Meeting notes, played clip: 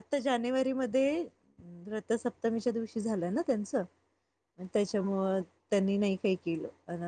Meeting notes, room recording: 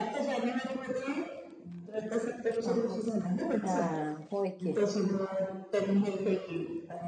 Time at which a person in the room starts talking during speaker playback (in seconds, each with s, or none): 2.7 s